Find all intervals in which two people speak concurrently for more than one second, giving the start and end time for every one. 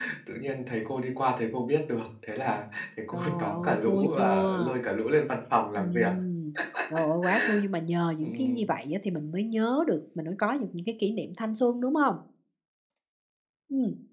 3.1-4.7

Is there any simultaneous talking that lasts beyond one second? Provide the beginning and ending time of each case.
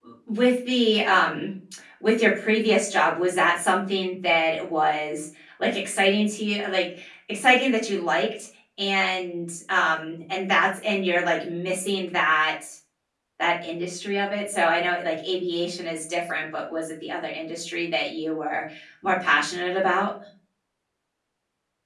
none

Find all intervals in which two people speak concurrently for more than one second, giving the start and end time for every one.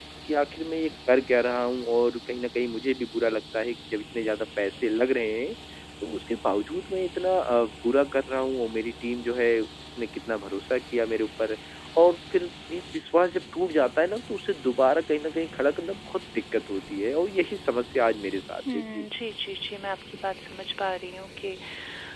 none

